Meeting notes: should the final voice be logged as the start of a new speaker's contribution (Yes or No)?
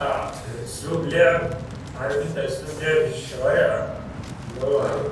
No